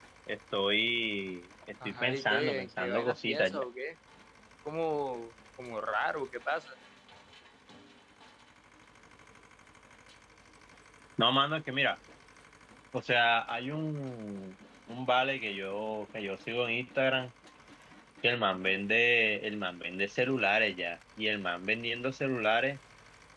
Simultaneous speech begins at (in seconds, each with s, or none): 1.8 s